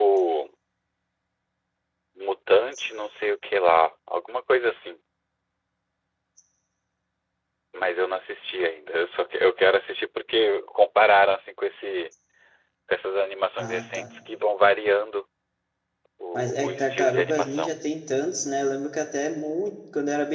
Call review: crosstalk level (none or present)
present